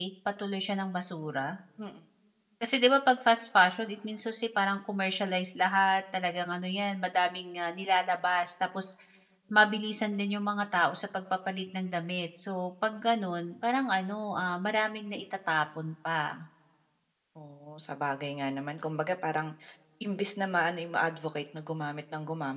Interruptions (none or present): none